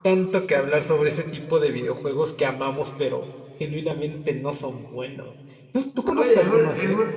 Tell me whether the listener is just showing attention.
No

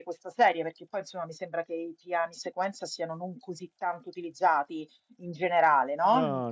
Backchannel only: No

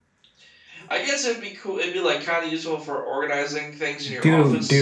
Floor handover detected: Yes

